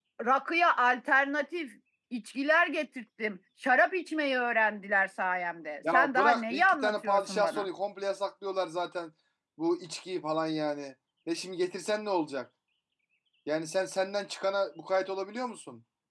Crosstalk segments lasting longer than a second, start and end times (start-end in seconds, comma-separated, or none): 5.9-7.6